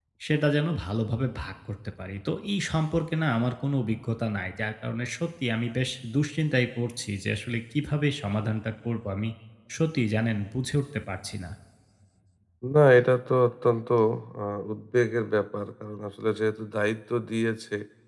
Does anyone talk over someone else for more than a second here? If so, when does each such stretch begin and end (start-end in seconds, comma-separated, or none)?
none